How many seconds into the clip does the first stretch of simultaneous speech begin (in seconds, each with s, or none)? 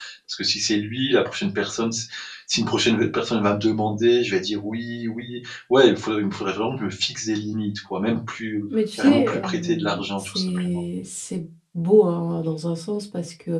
8.7 s